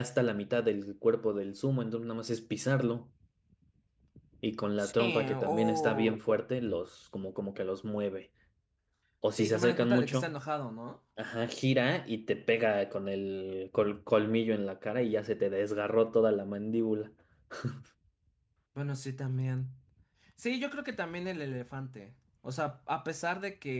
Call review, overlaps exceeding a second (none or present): present